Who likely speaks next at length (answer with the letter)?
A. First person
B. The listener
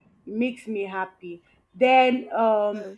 A